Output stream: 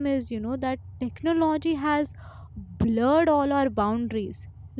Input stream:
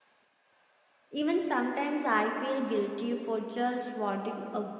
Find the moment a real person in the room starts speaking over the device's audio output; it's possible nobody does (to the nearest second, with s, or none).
1 s